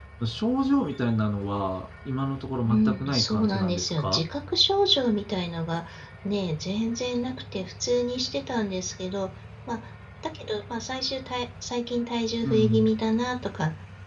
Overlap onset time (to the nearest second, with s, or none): 3 s